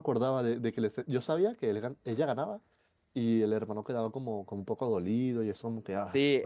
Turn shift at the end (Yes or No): Yes